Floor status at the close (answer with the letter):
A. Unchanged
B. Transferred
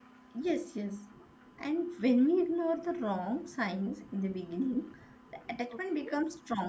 A